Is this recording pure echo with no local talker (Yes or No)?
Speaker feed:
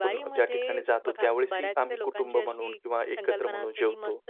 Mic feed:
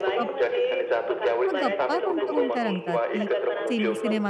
No